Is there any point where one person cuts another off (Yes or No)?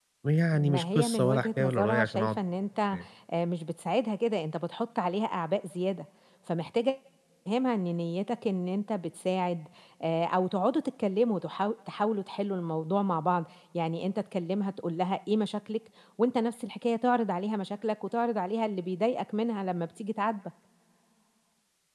Yes